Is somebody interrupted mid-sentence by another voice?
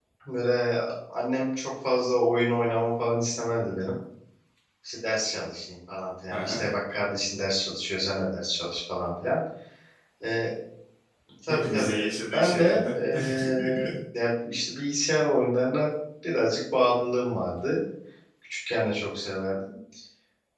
Yes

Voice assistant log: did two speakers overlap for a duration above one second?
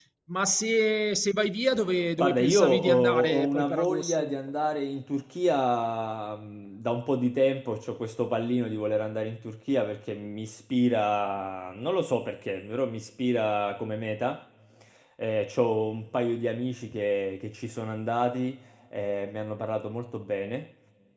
Yes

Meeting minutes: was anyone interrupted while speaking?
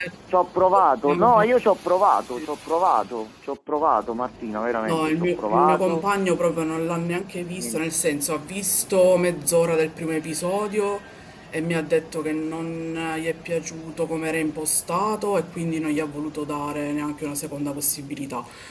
Yes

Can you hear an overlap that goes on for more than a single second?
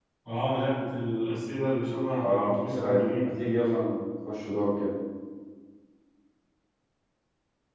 Yes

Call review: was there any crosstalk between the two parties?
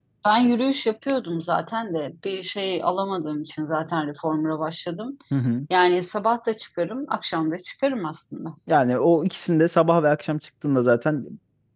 No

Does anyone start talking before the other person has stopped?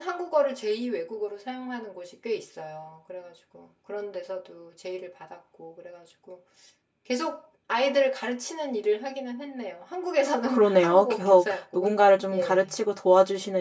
Yes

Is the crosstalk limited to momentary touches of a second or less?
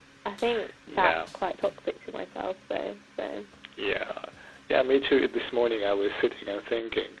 Yes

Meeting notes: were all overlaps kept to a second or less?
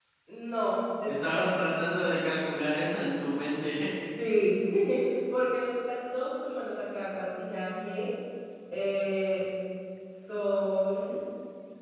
Yes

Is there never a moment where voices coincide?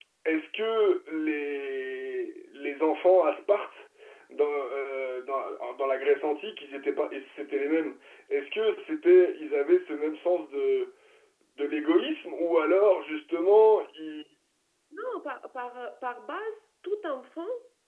Yes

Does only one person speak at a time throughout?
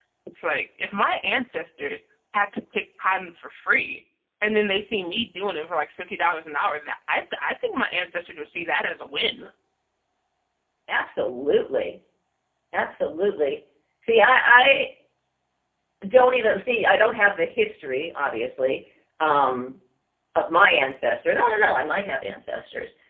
Yes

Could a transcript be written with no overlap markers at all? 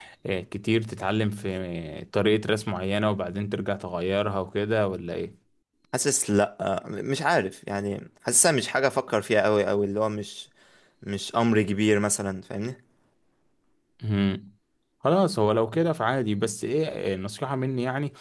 Yes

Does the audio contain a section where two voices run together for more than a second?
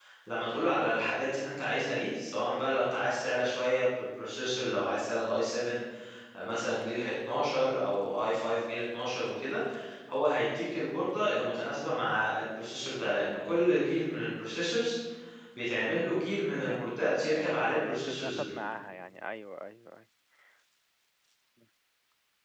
Yes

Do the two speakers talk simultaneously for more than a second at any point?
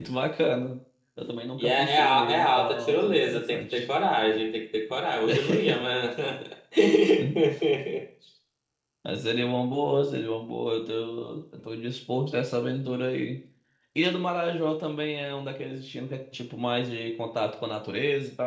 Yes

